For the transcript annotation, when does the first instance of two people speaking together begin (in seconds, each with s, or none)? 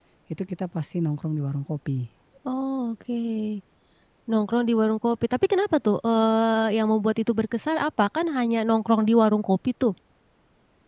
none